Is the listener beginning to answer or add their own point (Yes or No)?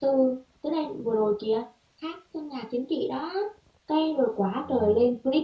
No